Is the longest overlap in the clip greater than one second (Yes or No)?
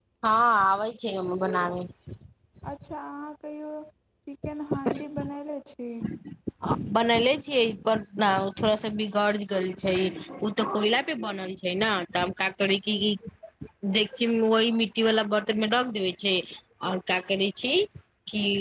No